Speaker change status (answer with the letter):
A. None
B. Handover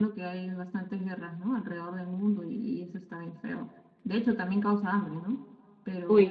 A